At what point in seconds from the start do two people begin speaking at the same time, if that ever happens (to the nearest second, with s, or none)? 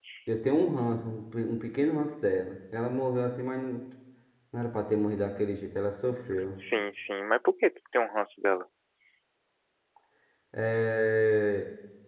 none